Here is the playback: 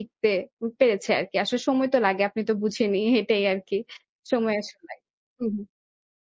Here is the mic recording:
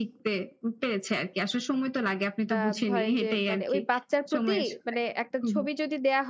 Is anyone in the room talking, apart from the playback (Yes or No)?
Yes